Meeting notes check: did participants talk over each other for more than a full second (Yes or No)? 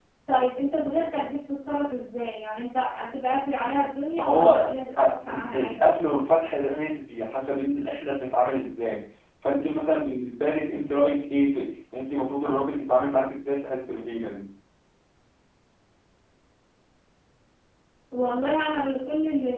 Yes